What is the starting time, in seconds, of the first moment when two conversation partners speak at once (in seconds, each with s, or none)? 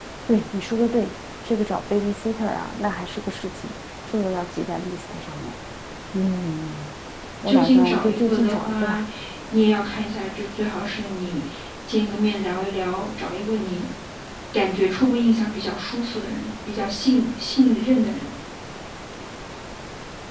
7.5 s